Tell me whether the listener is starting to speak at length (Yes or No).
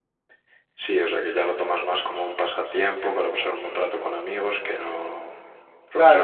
Yes